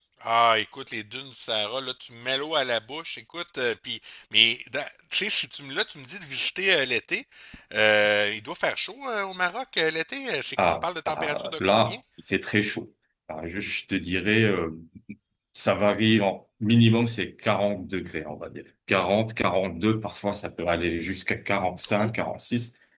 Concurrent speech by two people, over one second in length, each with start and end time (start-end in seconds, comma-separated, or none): 10.6-11.9